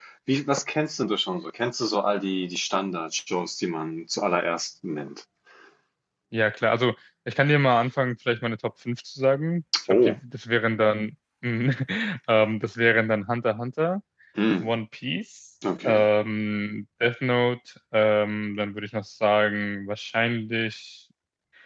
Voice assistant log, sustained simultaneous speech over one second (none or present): none